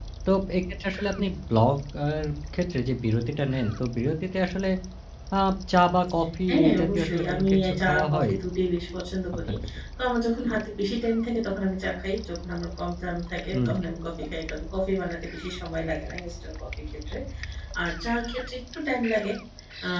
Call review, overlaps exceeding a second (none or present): present